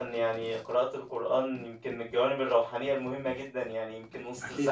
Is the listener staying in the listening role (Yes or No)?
Yes